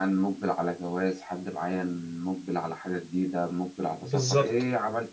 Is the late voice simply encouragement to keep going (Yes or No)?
Yes